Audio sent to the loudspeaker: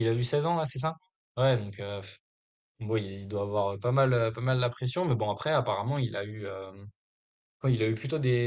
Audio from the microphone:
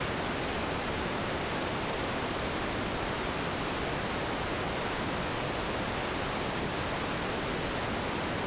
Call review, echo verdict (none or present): none